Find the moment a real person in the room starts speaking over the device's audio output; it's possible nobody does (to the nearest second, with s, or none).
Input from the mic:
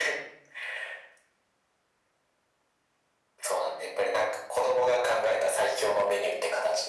none